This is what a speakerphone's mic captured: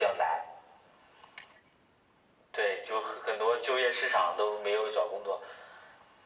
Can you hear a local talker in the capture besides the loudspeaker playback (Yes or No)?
No